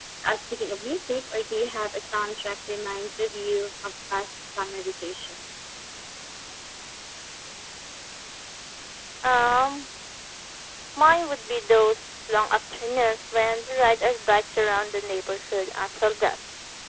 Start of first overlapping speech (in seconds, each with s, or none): none